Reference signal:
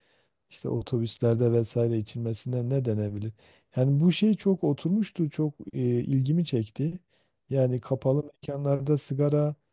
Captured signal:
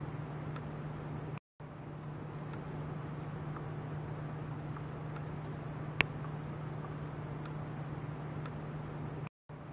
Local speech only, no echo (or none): none